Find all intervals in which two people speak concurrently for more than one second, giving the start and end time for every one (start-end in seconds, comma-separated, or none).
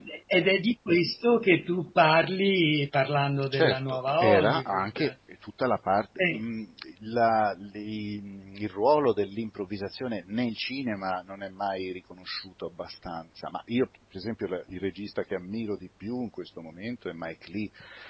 3.5-5.1